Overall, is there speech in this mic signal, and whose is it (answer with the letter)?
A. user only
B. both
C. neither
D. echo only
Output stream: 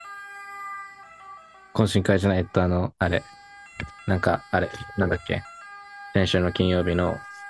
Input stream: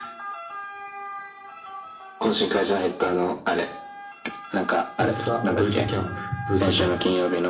B